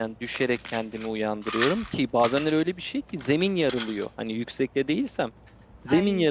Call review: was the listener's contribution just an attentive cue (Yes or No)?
Yes